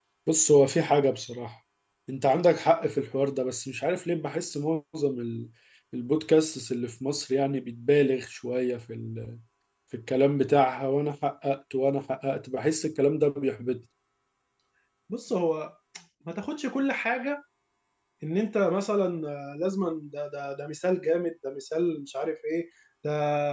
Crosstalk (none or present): none